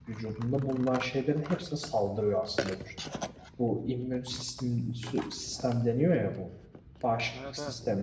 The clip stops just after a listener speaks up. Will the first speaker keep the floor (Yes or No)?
Yes